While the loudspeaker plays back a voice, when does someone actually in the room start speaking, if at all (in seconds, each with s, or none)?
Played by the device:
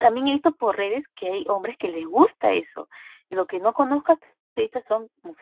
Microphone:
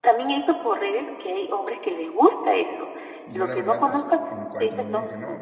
3.2 s